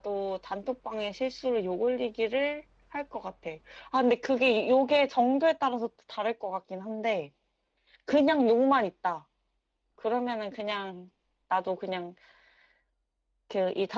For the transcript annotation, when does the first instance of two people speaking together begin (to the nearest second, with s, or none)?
none